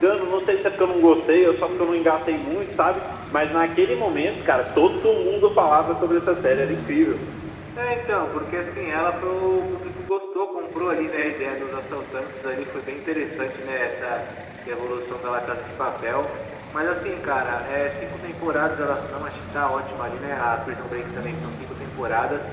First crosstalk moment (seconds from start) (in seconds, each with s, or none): none